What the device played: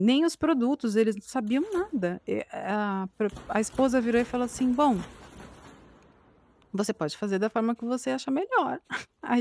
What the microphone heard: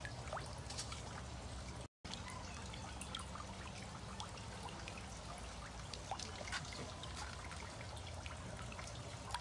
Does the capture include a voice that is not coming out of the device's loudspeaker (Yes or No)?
No